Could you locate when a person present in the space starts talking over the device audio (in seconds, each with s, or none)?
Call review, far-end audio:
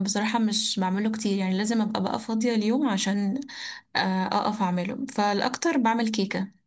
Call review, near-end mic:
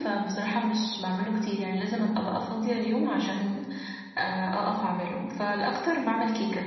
none